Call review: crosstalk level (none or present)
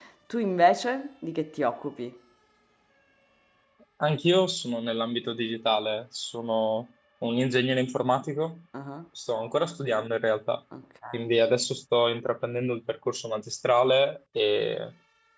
none